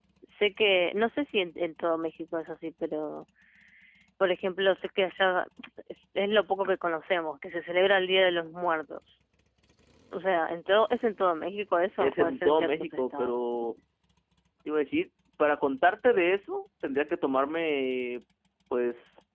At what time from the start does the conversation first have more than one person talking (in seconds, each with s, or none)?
12.0 s